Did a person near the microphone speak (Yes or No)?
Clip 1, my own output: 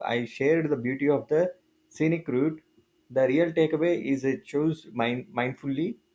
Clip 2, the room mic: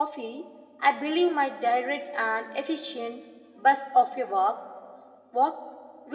Yes